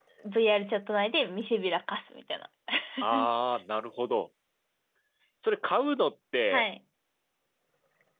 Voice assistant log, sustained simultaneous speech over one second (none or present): none